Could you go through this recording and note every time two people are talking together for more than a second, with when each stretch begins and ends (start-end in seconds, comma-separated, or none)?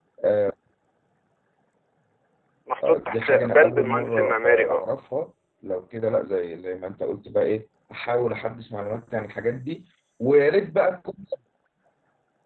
2.8-4.8